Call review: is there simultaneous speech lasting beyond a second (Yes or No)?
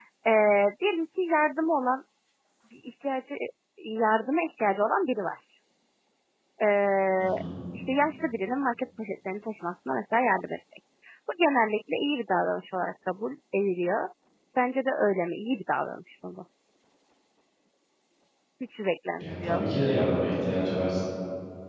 No